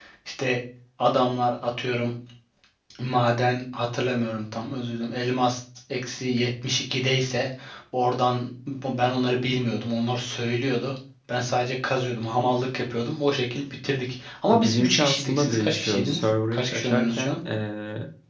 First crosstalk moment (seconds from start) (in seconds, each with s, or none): 14.5 s